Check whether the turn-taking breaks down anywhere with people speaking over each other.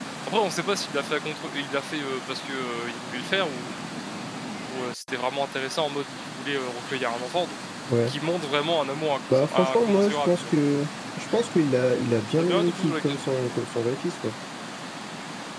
Yes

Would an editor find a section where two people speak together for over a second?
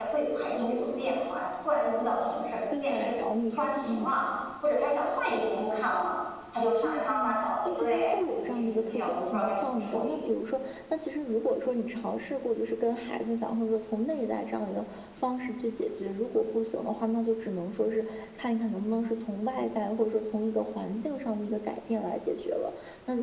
Yes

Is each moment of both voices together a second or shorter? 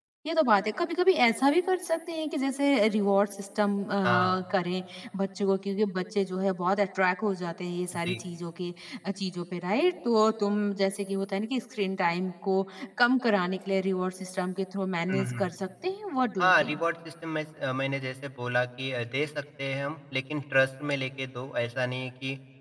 Yes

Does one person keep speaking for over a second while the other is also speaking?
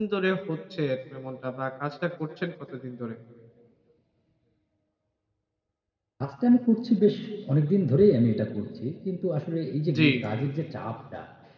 No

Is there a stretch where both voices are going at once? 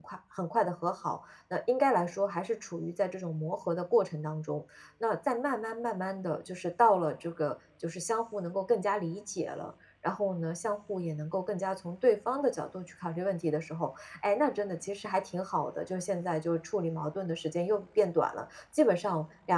No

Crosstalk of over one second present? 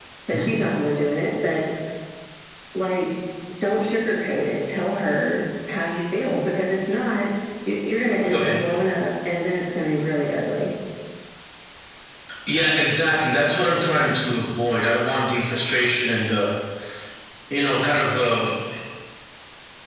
No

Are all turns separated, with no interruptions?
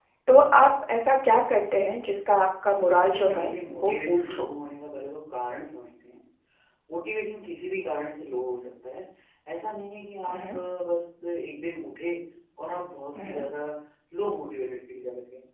No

